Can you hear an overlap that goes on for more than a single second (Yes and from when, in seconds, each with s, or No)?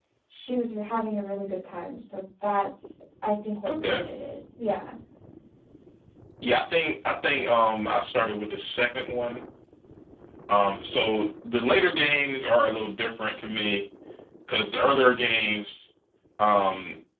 No